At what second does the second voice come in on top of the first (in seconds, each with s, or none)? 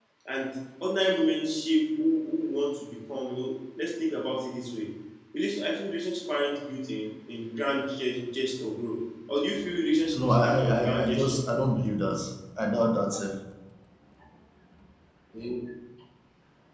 10.1 s